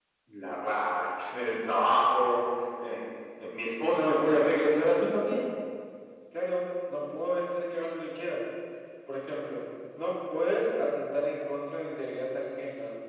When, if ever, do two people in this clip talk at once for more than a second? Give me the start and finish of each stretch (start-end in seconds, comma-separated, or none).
none